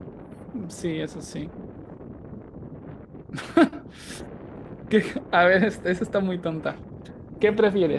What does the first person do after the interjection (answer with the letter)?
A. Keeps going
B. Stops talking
A